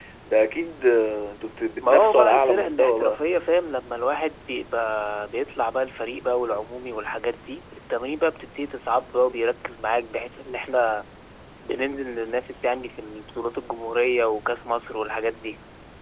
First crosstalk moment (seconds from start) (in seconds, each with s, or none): 1.8 s